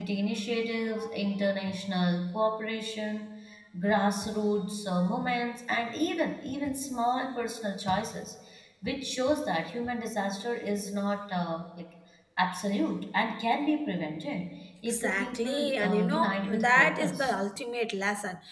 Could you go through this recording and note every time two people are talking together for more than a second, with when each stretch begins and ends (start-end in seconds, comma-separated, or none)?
14.9-17.3